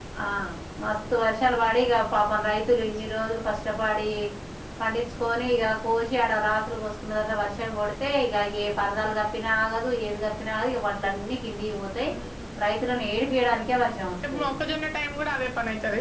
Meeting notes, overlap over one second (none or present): none